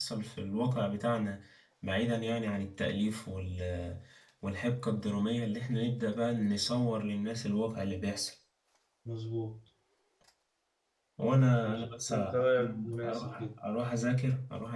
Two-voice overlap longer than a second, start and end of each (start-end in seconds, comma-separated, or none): 11.7-13.4